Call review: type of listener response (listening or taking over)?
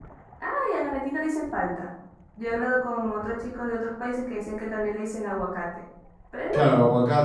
taking over